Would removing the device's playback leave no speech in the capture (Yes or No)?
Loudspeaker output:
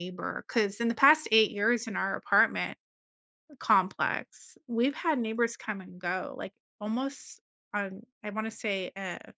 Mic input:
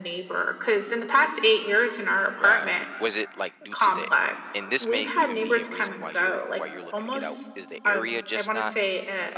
No